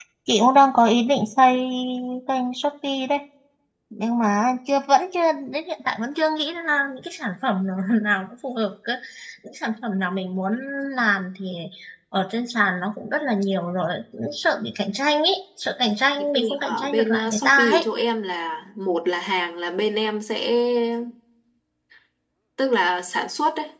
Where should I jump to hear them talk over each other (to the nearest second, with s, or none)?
16 s